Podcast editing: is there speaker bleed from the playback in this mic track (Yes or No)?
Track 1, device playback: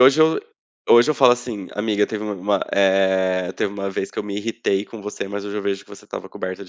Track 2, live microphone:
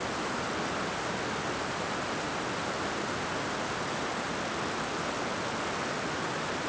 No